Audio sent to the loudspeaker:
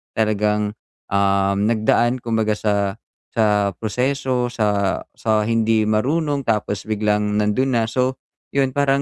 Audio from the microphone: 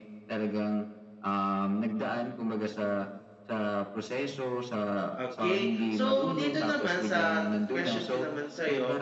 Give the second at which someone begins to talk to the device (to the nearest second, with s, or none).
5 s